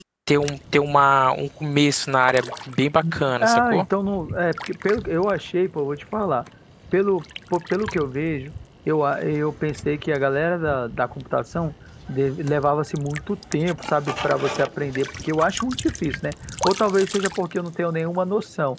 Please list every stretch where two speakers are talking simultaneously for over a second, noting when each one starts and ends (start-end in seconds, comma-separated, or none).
none